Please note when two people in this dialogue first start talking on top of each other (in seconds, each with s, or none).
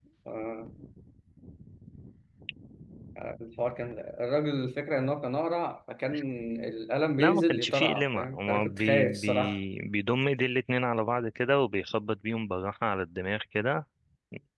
7.2 s